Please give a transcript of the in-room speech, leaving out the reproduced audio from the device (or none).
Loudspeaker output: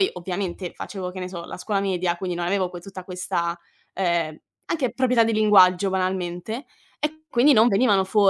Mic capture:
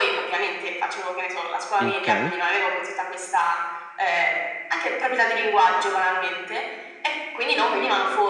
Okay.